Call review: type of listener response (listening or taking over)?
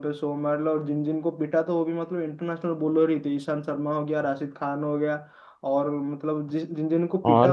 listening